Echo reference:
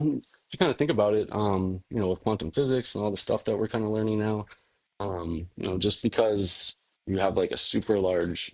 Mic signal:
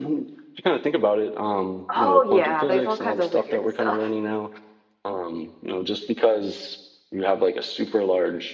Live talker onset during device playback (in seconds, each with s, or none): 1.9 s